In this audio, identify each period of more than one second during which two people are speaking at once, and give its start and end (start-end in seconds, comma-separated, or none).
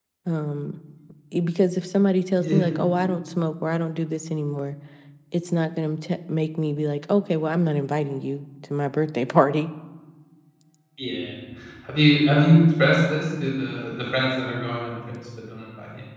none